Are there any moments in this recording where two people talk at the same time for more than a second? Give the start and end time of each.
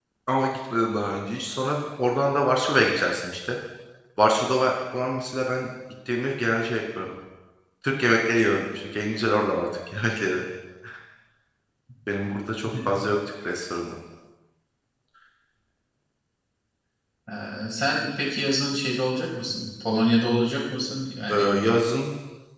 none

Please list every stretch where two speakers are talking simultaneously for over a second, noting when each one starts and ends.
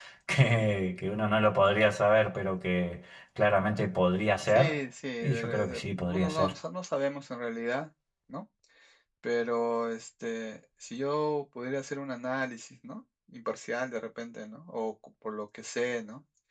5.2-6.5

